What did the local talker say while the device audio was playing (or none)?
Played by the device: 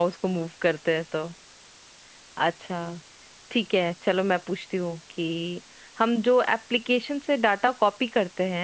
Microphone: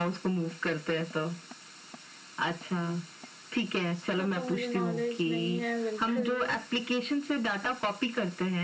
इसका तो मुझे नॉलेज नहीं है बिल्कुल भी